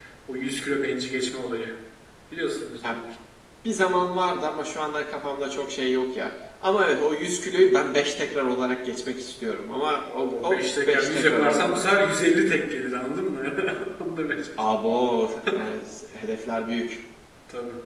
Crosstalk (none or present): present